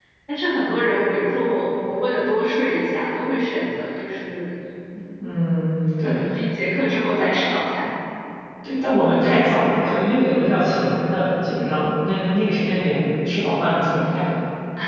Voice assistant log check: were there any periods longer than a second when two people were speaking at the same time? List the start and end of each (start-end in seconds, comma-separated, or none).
none